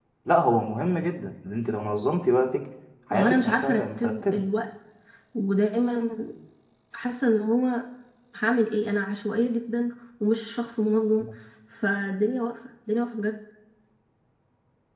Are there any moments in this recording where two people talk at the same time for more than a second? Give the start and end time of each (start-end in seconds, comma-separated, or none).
3.1-4.4